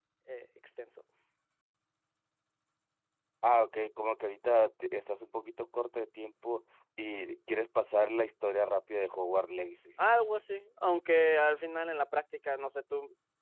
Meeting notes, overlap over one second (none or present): none